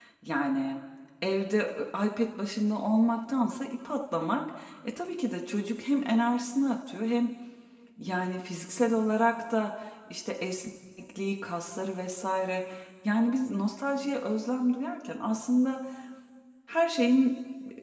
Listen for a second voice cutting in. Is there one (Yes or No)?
No